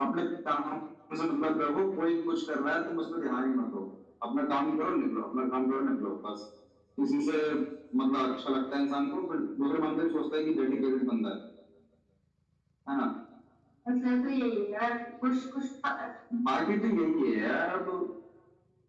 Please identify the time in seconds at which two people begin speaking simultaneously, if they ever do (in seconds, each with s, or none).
none